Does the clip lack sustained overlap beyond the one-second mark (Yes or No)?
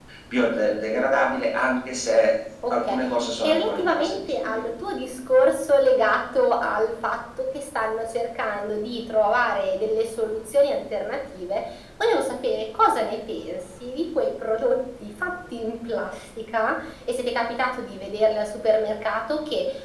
No